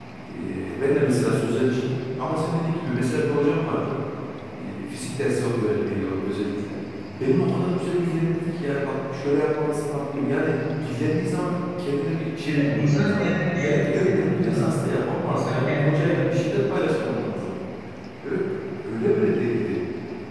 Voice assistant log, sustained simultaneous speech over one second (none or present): present